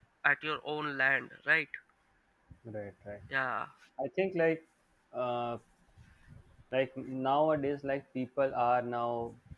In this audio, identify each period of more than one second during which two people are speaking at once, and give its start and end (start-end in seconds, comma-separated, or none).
none